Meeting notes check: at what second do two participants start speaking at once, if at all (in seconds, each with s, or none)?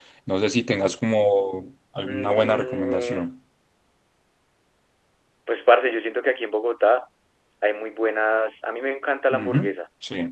2.0 s